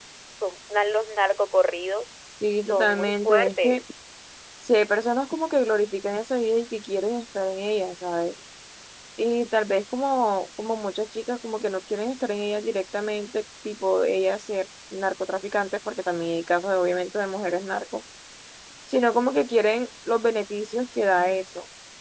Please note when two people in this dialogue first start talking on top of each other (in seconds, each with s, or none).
2.6 s